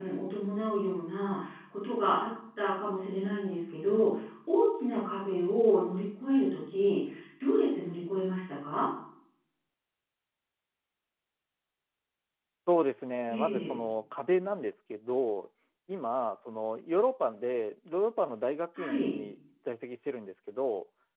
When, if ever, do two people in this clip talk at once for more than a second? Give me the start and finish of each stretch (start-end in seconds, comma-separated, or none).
none